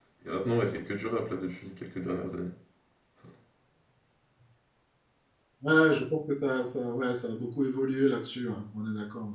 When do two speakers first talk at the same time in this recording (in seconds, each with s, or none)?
none